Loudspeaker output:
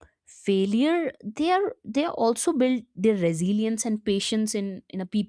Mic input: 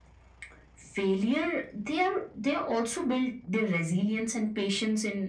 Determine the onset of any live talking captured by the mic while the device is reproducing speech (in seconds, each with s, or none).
none